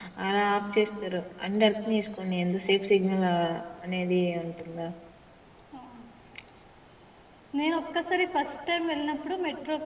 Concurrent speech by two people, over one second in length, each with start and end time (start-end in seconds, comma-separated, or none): none